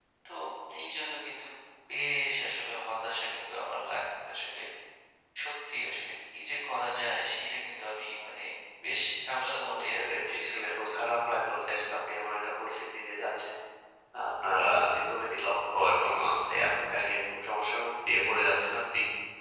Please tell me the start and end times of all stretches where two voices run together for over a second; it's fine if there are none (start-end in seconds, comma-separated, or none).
9.7-11.1